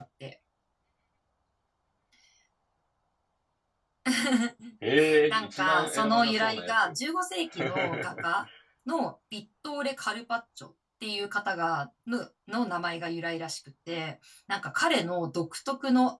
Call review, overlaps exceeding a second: present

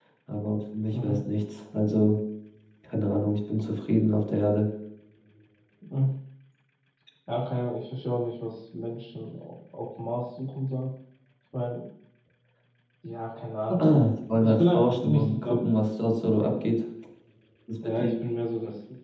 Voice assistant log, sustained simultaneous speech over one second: present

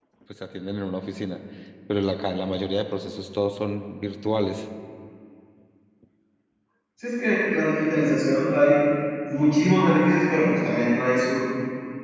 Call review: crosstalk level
none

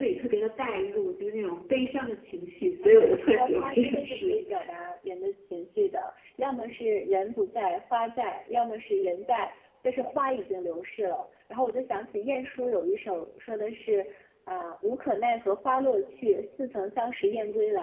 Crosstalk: present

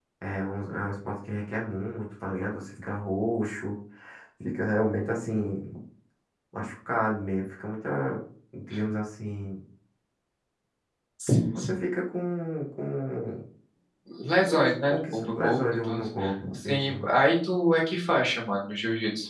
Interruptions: present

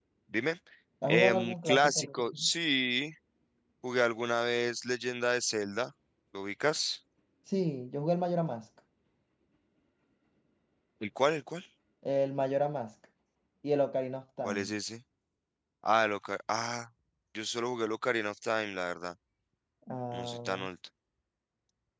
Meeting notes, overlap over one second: present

